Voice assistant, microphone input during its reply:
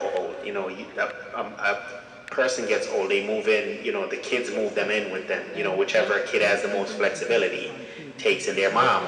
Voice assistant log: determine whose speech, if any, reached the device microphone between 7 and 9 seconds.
both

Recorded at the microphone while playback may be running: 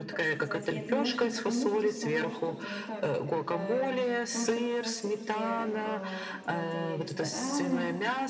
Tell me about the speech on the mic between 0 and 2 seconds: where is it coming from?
both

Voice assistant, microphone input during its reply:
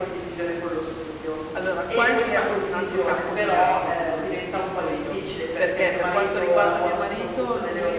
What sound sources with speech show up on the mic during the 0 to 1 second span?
echo only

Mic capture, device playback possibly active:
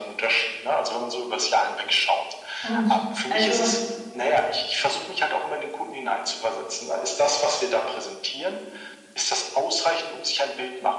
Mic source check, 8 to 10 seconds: echo only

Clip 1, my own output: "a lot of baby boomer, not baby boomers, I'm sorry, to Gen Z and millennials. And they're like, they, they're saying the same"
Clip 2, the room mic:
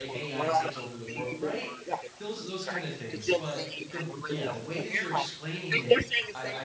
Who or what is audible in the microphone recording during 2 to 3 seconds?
both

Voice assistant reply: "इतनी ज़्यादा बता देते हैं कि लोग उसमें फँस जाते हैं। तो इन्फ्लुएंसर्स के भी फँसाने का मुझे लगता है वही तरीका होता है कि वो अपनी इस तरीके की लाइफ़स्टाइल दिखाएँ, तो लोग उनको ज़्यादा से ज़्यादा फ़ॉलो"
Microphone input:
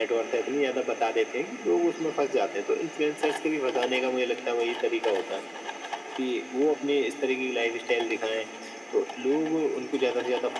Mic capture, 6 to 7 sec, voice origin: echo only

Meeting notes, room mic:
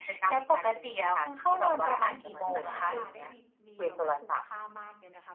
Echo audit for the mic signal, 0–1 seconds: echo only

